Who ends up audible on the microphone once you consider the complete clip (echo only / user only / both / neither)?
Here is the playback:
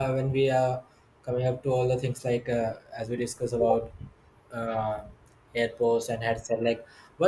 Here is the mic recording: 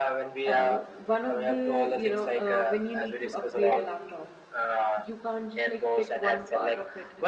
both